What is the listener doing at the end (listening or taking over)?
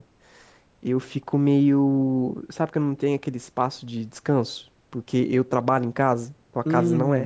taking over